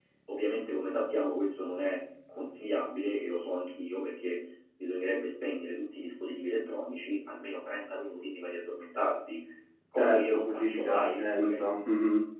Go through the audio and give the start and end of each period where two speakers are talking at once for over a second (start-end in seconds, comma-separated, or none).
10.0-11.6